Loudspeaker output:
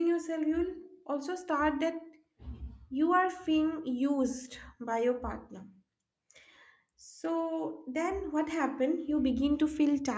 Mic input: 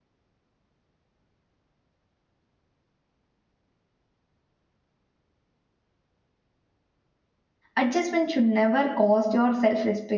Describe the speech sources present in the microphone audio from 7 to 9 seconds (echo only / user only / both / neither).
user only